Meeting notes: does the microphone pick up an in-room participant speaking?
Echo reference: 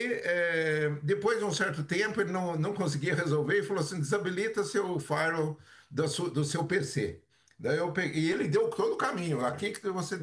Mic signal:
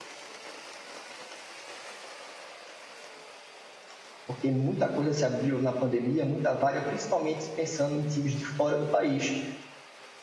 Yes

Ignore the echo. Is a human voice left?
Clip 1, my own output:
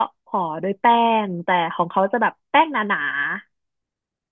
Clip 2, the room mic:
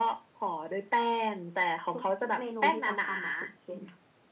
Yes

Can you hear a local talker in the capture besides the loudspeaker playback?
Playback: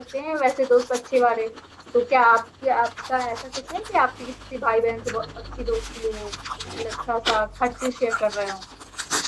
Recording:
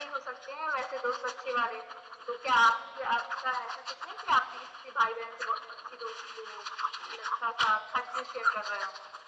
No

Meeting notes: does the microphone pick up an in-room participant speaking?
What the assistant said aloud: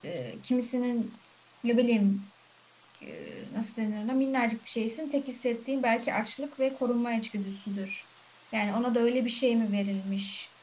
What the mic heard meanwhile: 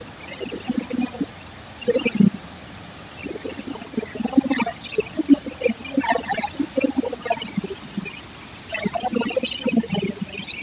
No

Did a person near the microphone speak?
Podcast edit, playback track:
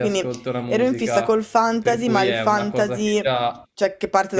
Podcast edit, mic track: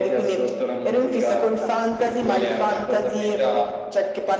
Yes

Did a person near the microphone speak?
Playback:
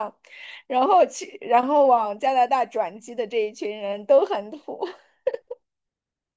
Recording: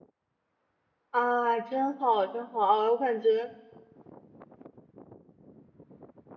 Yes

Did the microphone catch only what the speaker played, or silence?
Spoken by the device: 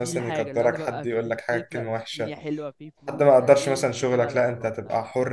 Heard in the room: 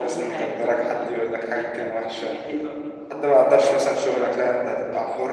Yes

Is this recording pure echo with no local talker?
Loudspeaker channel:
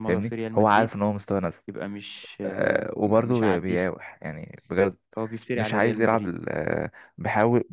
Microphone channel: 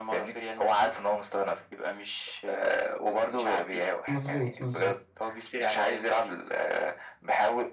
No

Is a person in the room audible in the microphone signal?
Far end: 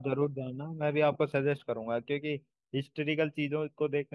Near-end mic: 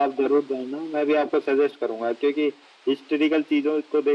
No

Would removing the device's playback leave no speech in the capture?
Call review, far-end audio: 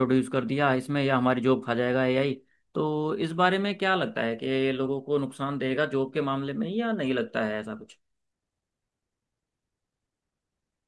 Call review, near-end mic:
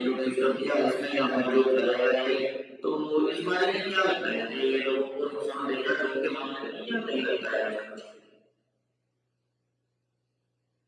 Yes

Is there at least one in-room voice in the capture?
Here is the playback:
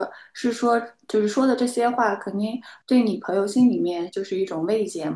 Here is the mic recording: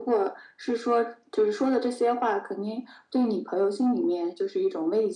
No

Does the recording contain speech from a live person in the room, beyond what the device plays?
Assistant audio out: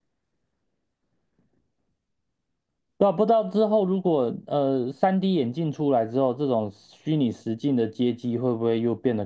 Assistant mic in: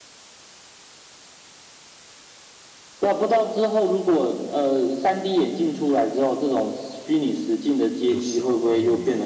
Yes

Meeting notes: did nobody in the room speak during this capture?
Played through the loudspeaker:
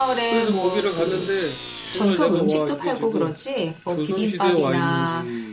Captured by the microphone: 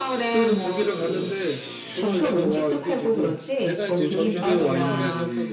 No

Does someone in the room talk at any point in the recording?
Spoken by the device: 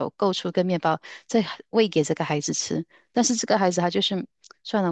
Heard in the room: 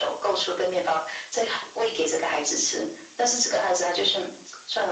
No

